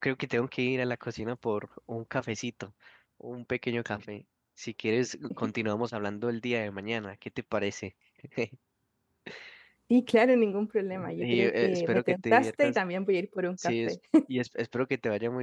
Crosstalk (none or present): present